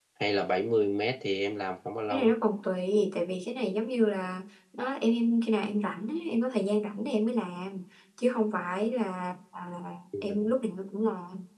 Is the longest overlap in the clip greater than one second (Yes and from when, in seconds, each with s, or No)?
No